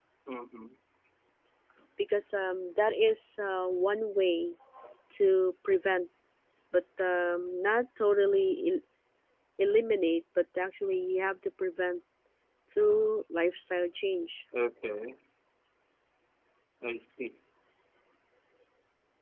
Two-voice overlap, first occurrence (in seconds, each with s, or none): none